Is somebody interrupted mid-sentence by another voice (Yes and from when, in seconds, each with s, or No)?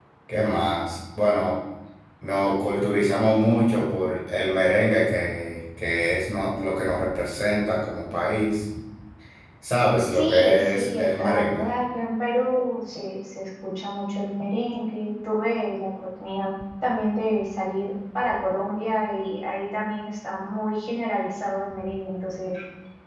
Yes, from 10.1 s